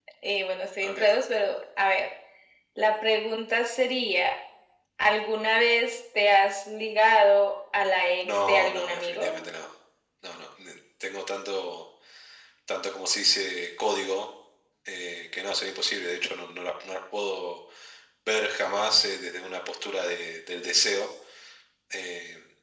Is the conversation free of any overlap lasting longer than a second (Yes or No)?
No